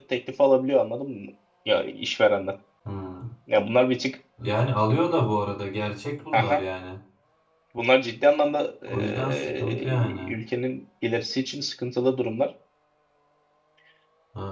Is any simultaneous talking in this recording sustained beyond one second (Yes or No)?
Yes